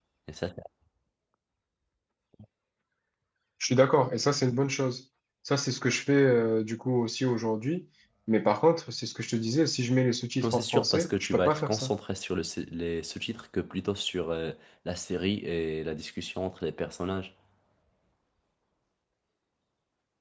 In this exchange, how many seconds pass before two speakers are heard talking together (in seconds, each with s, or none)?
10.4 s